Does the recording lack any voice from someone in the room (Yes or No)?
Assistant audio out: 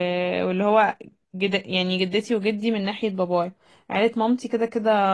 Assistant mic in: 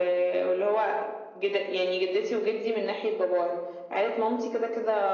Yes